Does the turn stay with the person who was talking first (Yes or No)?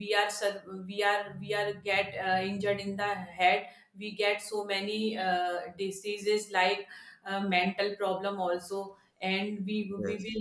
Yes